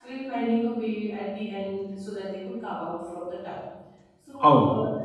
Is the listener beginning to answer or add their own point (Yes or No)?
No